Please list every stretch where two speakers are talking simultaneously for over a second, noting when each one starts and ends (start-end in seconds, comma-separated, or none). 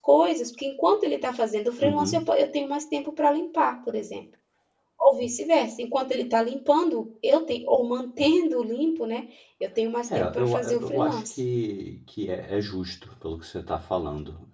10.2-11.4